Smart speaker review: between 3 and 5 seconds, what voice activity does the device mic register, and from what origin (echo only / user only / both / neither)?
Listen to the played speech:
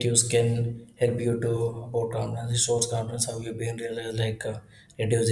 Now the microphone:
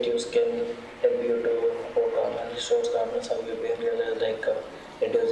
echo only